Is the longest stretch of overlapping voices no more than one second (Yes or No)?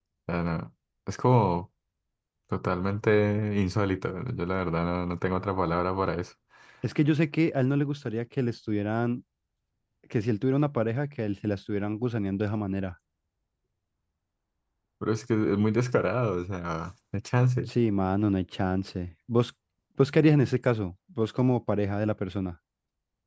Yes